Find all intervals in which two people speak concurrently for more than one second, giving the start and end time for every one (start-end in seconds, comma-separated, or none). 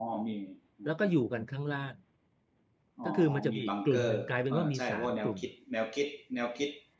3.0-5.4